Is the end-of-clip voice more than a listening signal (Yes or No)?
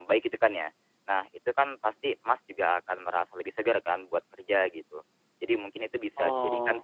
No